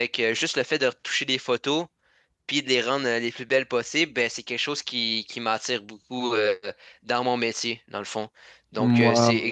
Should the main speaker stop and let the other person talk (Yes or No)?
No